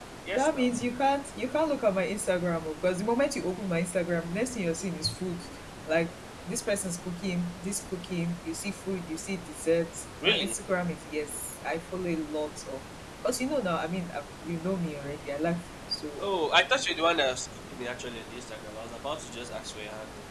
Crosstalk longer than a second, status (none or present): none